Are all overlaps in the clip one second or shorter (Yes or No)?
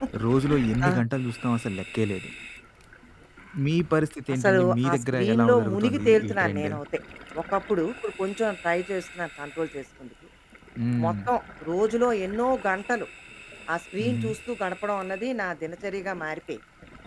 No